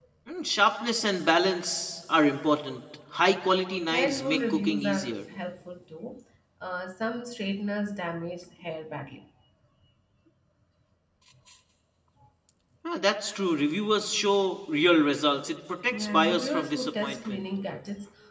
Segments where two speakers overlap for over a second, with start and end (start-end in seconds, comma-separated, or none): 3.9-5.2, 15.9-17.4